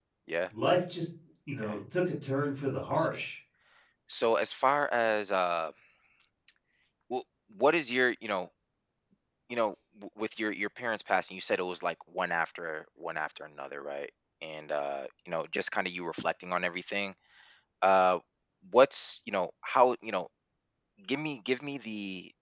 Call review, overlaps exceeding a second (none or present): none